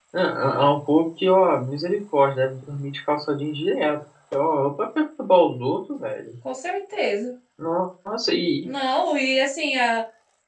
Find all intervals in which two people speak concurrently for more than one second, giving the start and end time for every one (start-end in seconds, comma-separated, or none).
none